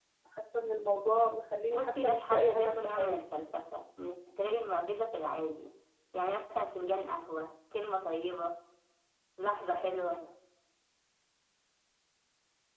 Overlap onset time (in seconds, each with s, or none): 1.7 s